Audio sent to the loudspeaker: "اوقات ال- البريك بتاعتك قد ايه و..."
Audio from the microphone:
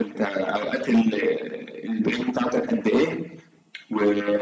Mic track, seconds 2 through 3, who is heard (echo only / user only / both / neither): echo only